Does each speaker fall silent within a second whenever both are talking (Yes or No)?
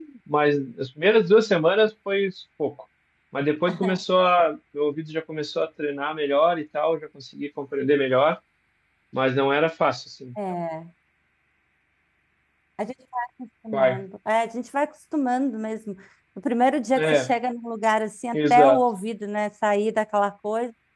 Yes